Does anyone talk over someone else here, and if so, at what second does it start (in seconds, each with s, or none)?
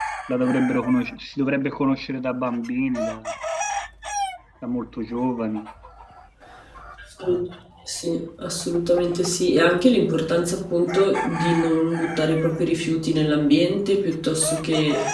none